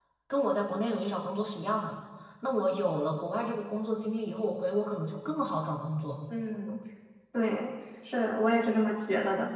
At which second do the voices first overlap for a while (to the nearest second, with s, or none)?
none